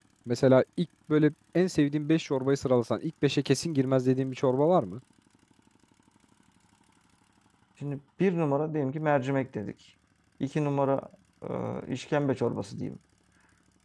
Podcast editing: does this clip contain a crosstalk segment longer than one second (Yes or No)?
No